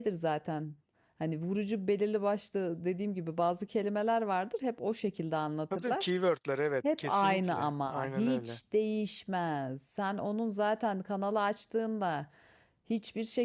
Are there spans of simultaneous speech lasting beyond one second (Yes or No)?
Yes